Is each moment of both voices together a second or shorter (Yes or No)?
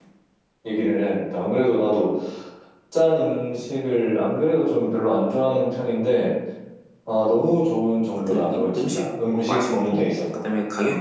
No